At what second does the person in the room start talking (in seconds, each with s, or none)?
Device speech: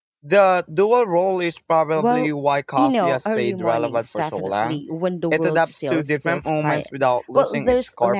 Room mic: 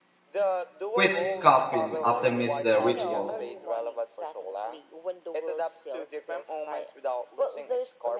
0.9 s